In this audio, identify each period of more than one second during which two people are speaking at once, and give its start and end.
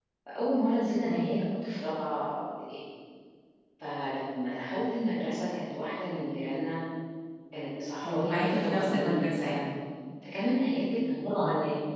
8.0-9.6

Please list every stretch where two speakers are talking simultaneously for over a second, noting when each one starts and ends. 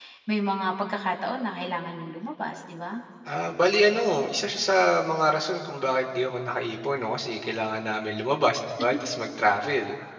none

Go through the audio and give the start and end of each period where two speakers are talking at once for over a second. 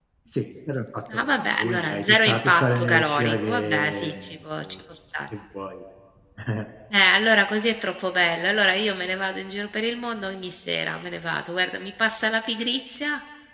1.1-4.8

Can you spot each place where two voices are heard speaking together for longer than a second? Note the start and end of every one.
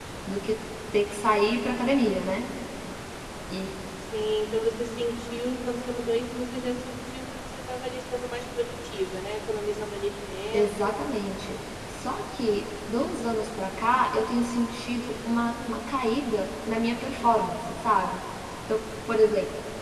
none

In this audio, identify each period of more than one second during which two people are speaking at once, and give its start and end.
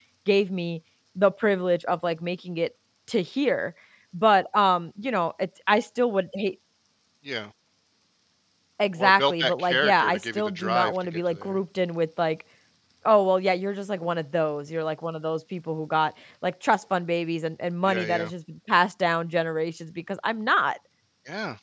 9.0-11.6

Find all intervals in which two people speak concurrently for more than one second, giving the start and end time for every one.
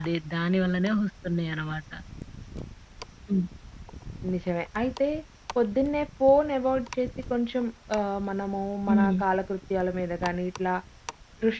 none

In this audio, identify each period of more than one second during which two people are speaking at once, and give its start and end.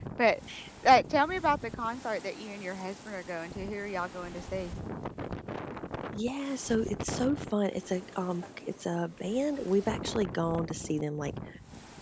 none

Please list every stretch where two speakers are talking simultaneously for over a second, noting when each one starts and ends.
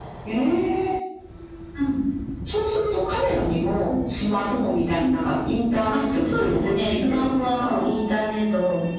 5.9-7.8

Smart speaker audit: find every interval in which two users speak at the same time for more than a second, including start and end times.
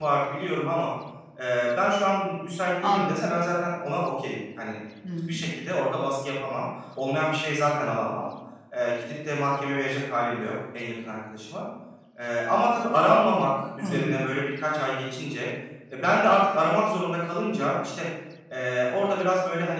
none

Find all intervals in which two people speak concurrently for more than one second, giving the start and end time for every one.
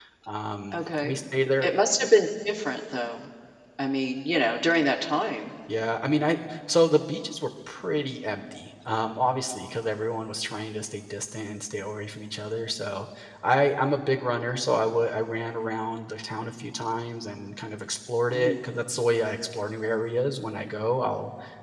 none

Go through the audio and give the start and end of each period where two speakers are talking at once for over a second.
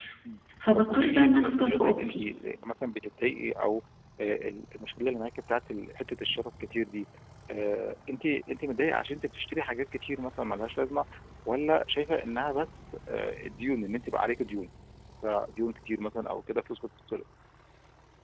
0.8-2.1

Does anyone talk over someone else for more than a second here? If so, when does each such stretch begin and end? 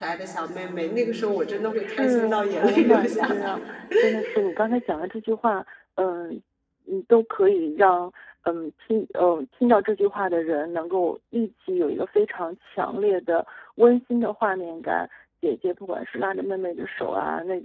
1.7-3.5

